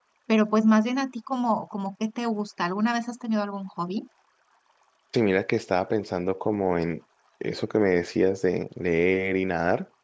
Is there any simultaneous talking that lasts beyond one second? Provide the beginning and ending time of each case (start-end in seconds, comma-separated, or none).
none